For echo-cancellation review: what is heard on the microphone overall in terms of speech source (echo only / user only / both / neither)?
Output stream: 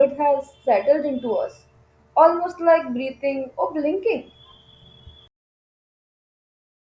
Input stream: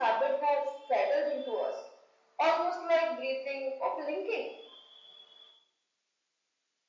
echo only